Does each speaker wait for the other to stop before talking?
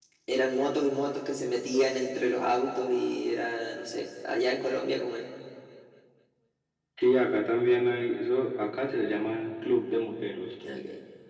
Yes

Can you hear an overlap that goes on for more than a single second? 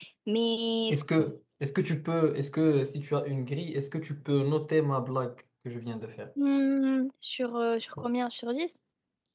No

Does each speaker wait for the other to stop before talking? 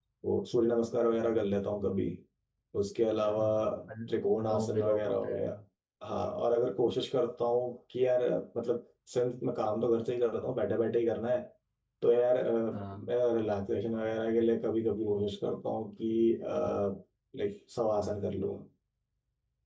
No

